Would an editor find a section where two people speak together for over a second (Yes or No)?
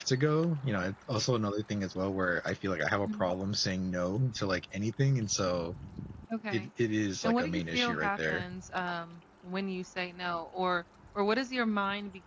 Yes